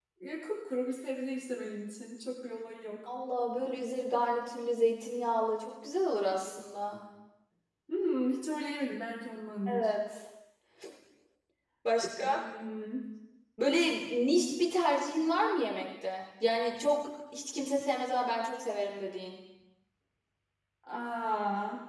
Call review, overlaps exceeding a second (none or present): none